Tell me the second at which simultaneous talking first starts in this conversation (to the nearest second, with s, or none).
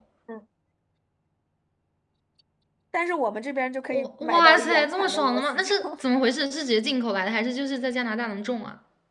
4 s